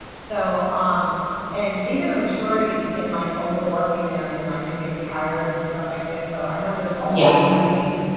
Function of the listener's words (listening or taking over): listening